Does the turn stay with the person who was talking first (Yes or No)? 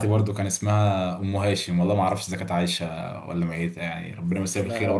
No